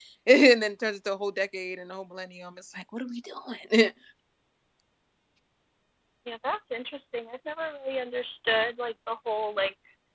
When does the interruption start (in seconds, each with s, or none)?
none